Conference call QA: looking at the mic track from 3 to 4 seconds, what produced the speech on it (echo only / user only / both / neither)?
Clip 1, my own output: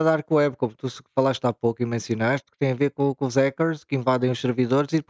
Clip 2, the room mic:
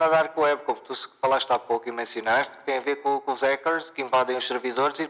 echo only